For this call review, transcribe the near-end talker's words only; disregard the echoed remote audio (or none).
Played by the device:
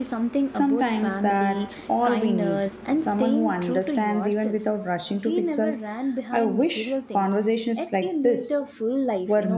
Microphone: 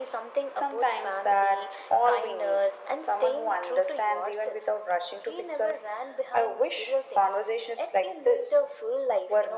none